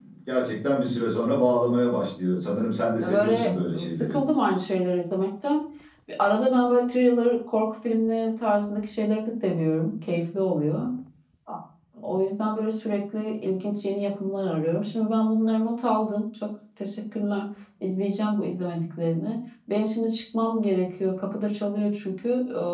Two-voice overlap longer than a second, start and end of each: 3.0-4.2

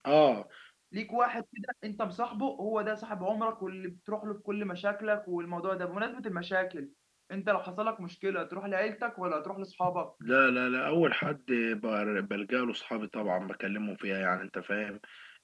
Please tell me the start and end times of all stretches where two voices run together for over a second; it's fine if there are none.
none

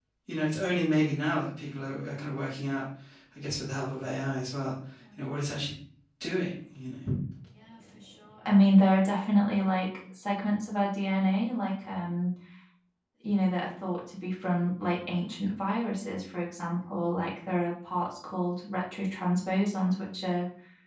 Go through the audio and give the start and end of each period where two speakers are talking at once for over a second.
none

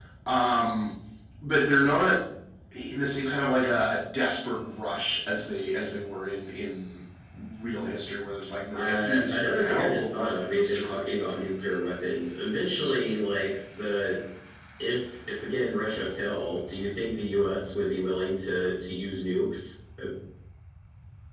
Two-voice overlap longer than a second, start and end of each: 8.7-11.1

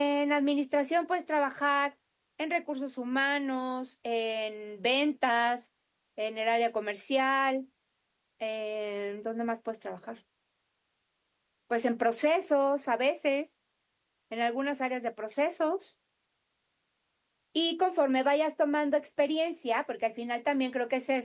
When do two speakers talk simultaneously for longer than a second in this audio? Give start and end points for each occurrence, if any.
none

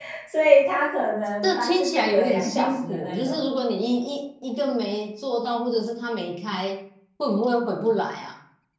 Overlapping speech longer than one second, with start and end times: 1.4-3.4

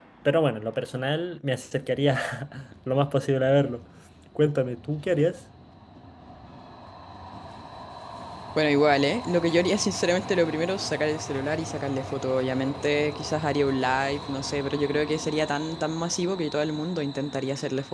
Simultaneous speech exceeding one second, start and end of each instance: none

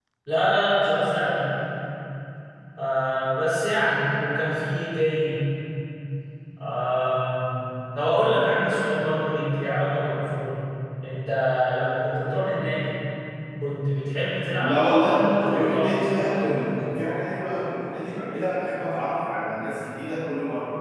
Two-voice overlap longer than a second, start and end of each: 14.6-16.6

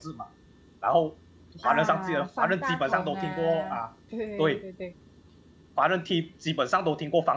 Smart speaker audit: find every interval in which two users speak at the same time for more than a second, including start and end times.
1.6-3.8

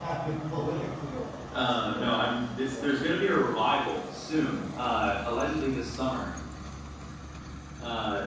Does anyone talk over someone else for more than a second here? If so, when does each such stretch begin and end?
1.5-2.9

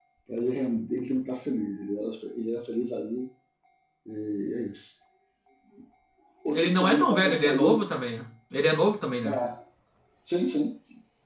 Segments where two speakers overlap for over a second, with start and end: 6.5-7.8

